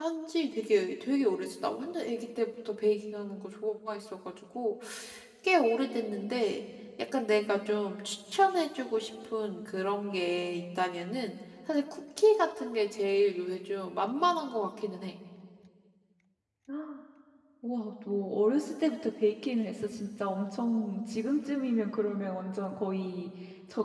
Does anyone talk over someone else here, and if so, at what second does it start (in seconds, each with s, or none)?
none